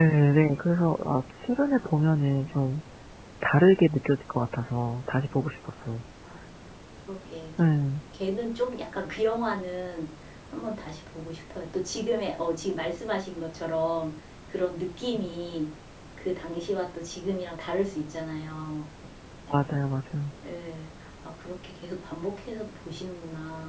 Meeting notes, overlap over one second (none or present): none